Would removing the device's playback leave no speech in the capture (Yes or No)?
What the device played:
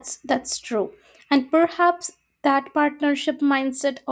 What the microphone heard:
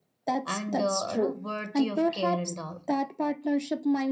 No